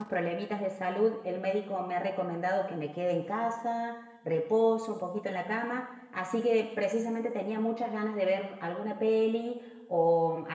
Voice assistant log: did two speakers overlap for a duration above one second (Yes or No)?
No